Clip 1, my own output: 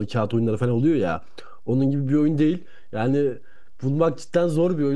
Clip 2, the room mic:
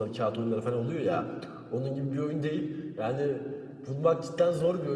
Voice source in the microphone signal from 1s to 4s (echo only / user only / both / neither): echo only